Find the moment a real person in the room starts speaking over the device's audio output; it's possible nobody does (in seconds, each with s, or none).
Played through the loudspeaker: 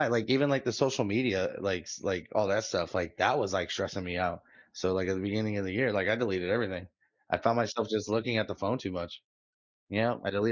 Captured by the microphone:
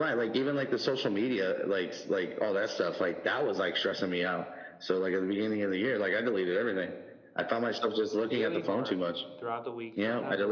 8.3 s